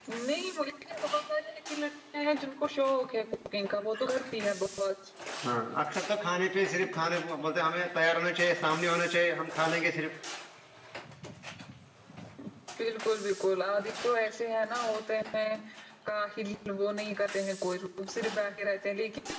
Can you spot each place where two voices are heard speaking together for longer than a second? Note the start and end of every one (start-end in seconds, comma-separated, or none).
none